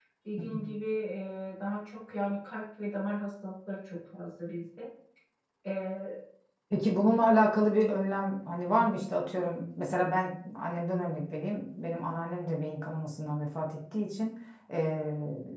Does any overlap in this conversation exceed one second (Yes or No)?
No